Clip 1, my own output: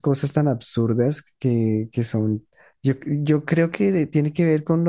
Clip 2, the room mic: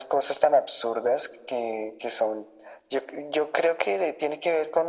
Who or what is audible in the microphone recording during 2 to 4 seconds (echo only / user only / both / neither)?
echo only